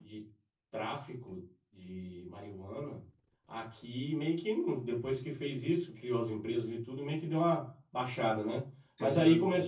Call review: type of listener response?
listening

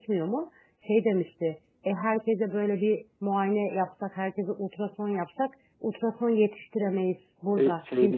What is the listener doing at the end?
taking over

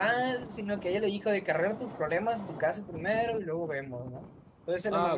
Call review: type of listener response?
listening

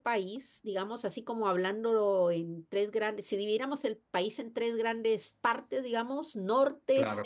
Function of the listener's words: listening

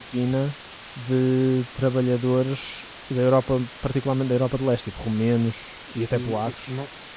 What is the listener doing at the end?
taking over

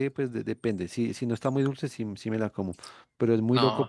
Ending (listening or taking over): listening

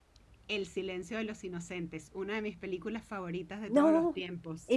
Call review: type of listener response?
taking over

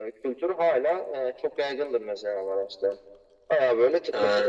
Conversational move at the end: listening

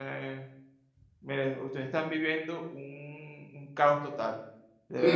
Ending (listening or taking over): taking over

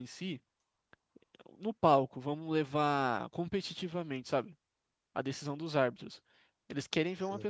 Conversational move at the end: listening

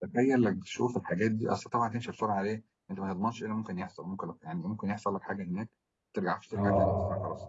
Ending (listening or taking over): listening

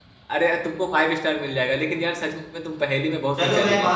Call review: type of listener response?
taking over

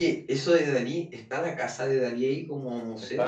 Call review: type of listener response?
taking over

